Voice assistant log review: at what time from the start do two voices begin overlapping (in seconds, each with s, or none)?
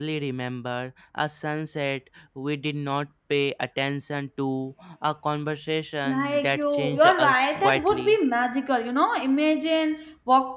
6.0 s